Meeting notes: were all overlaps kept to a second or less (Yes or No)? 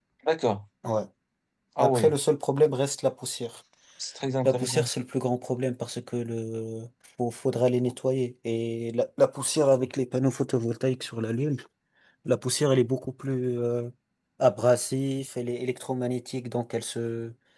Yes